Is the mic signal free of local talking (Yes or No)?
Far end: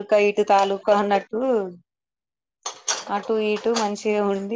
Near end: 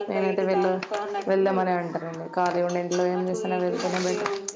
No